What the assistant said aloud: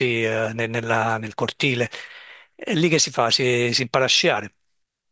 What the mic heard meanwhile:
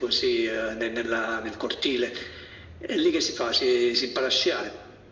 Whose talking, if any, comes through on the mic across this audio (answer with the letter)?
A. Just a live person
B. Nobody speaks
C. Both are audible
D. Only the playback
D